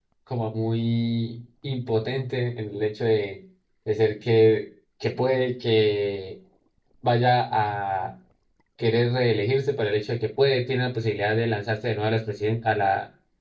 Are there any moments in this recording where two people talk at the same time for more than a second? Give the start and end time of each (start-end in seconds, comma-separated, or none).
none